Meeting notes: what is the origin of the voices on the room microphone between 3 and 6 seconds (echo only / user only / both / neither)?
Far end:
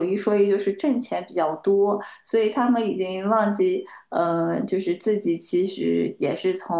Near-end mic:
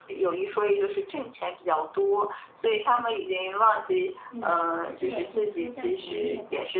both